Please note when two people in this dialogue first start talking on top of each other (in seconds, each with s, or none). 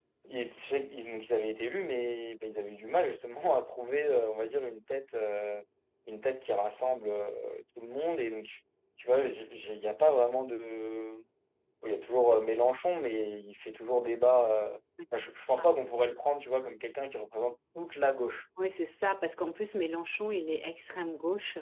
none